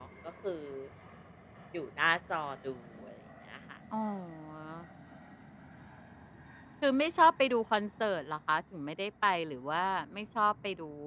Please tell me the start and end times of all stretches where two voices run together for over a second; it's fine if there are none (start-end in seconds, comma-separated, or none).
none